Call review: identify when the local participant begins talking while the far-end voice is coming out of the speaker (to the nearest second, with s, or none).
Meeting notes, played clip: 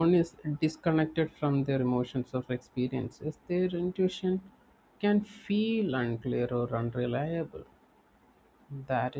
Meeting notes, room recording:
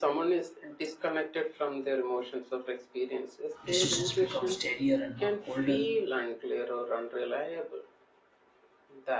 4 s